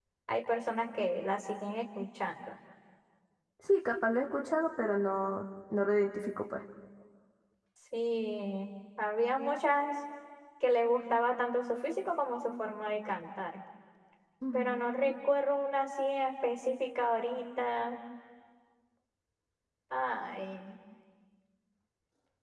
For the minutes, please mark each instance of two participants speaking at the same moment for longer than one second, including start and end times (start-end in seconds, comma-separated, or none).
none